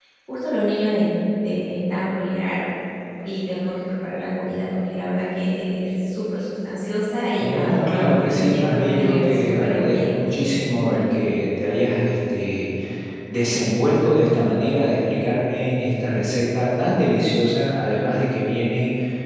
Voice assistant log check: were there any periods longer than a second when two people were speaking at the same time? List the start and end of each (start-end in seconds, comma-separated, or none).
7.4-10.2